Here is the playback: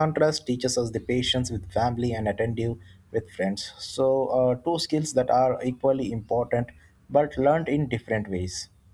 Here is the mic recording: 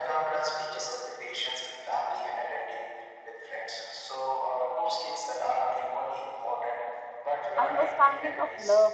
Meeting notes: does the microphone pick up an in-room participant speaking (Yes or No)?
Yes